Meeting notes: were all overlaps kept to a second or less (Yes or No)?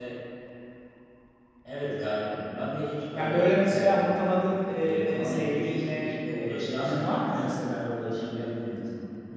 No